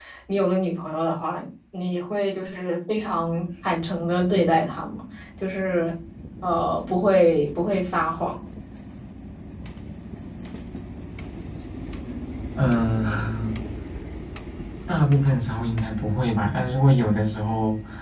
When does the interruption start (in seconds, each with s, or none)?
none